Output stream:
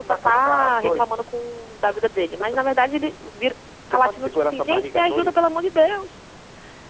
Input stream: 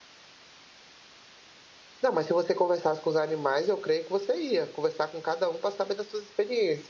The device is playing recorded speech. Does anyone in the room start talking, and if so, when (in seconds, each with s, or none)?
2.0 s